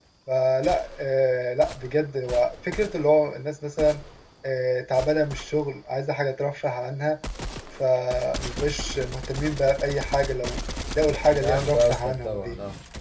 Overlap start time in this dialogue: 11.1 s

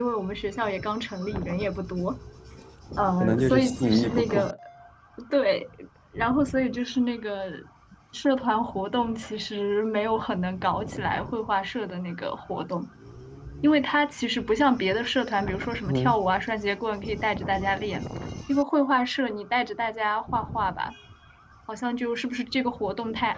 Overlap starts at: 3.2 s

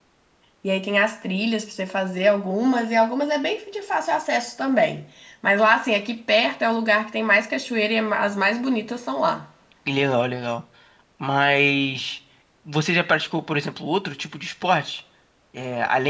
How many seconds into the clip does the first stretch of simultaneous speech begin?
none

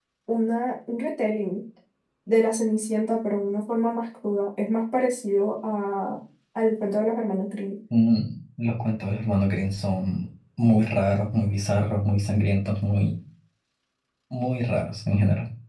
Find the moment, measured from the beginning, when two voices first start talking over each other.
none

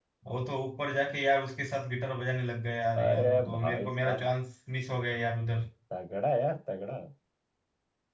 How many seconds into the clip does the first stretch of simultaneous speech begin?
3.0 s

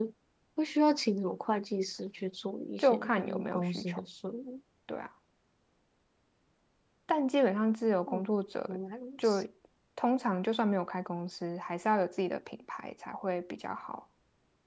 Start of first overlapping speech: 2.8 s

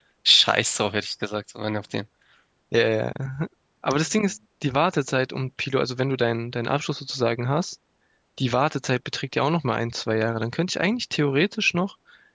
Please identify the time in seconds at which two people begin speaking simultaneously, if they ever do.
none

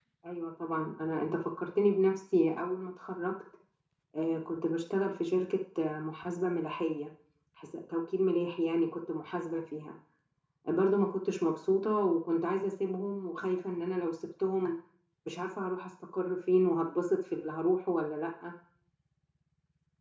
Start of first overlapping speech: none

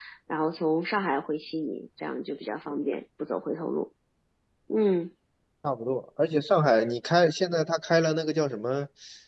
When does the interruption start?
none

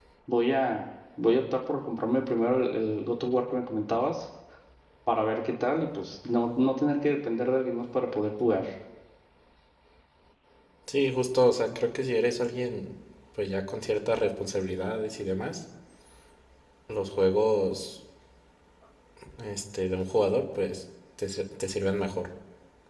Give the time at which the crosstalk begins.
none

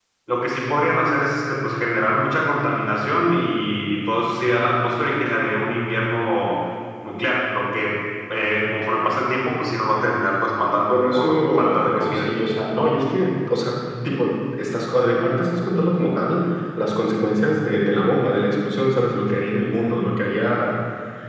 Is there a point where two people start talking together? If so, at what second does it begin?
10.9 s

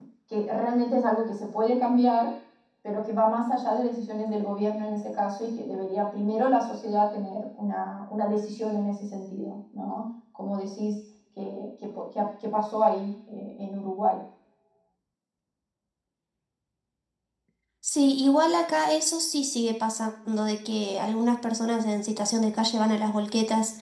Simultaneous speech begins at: none

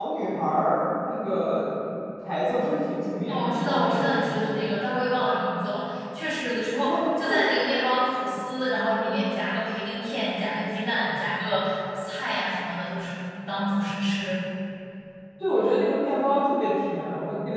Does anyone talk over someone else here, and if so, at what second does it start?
3.3 s

